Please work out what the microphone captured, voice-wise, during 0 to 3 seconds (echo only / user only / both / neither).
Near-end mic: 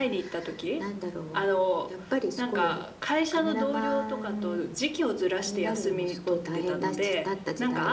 echo only